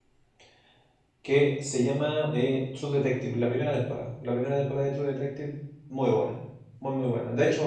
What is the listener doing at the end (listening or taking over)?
listening